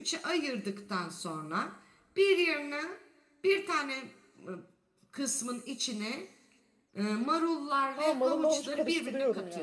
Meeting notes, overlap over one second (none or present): present